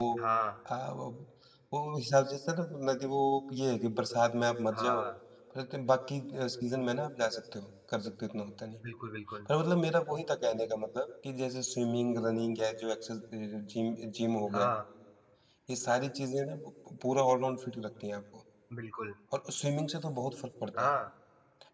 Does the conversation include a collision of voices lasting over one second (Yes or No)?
No